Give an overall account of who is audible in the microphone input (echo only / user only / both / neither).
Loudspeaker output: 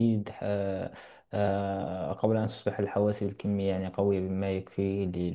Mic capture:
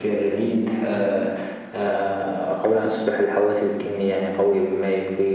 echo only